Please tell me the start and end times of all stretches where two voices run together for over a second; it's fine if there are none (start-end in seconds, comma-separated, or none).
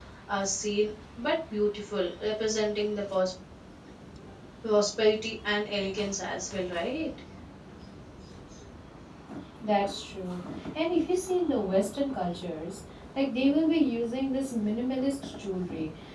none